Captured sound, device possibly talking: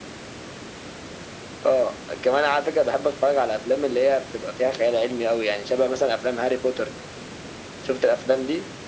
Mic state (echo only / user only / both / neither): echo only